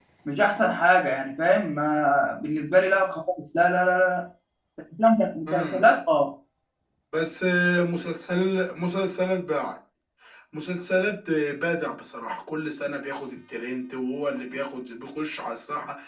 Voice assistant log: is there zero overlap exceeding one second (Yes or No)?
Yes